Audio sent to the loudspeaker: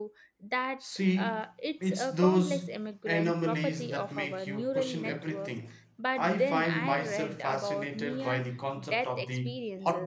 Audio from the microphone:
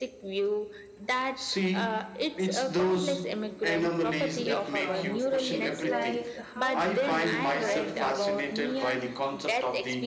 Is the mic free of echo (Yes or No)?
No